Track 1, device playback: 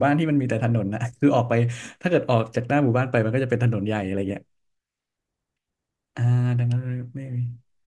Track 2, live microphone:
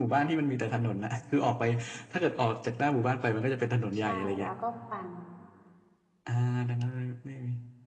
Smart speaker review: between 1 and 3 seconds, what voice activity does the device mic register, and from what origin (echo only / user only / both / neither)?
echo only